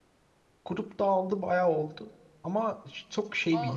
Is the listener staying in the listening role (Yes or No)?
Yes